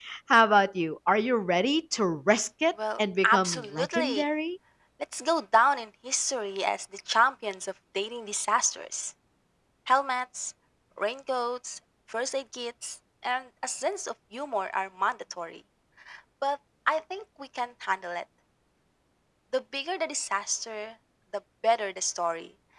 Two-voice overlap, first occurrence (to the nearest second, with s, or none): 3 s